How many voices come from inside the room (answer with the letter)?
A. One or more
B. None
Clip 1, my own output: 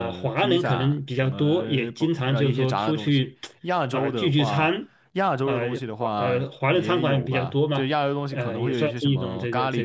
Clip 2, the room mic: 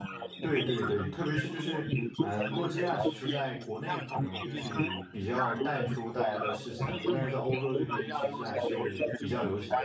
A